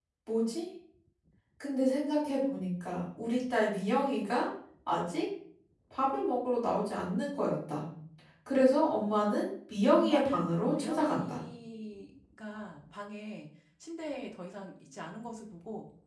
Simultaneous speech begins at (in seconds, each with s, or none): 10.0 s